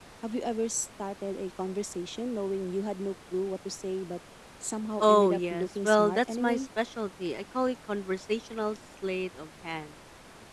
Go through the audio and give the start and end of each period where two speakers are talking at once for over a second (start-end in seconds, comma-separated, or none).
5.0-6.7